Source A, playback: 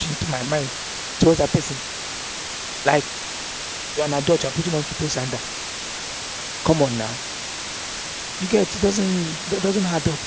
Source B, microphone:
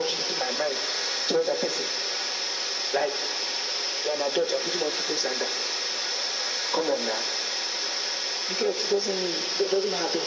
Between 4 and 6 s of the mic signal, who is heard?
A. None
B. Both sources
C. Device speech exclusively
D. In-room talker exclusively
C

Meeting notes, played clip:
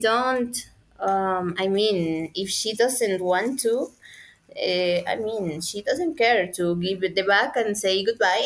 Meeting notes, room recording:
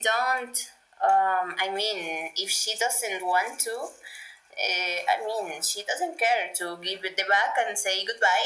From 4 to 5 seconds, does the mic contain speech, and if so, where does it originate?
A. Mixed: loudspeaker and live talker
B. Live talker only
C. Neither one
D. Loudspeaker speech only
D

